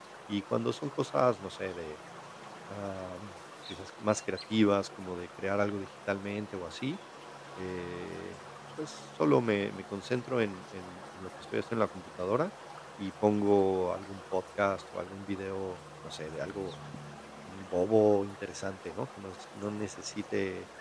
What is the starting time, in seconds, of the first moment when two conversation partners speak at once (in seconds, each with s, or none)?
none